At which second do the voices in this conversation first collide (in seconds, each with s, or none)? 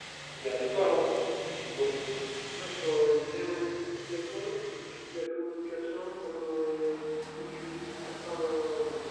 none